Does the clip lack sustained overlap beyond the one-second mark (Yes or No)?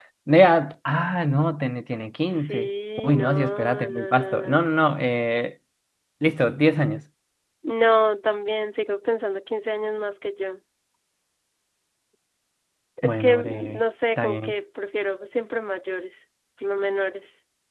No